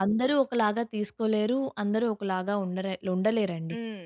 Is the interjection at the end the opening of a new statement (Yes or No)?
No